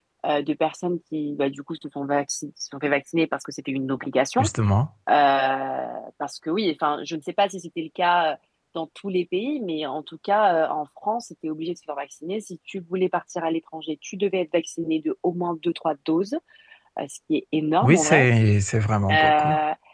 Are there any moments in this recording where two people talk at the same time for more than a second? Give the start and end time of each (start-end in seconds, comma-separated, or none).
none